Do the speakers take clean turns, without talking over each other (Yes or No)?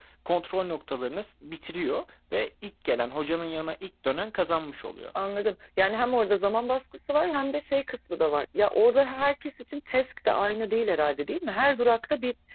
Yes